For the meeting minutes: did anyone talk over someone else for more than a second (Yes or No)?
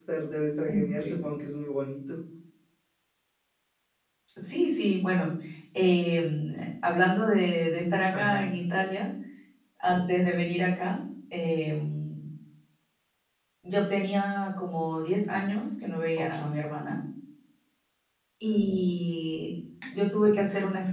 No